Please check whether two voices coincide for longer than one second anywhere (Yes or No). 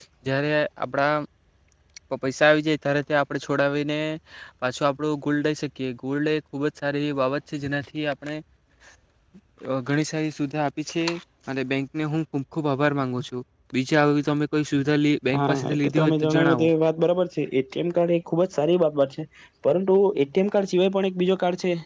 Yes